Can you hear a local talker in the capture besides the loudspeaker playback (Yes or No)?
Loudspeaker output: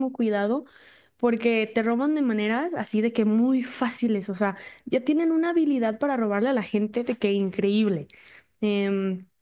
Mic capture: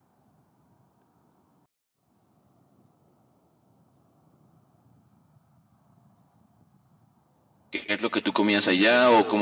Yes